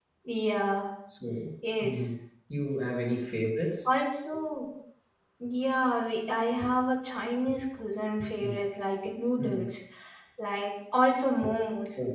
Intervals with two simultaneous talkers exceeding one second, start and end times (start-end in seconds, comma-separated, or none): none